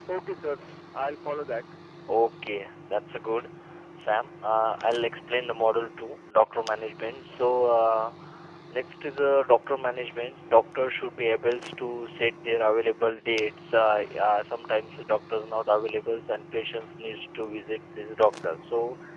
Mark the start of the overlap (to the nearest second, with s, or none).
none